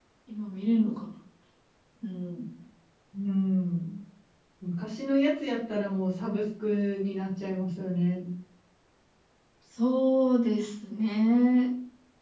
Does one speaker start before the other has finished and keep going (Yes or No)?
No